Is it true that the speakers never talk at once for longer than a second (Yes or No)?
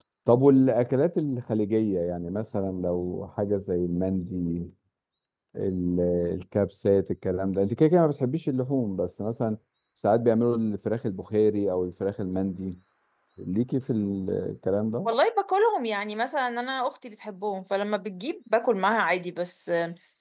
Yes